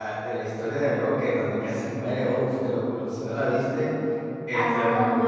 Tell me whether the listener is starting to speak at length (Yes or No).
Yes